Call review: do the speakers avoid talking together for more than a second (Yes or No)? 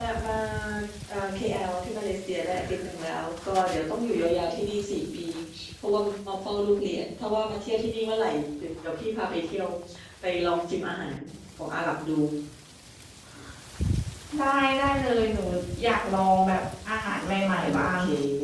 Yes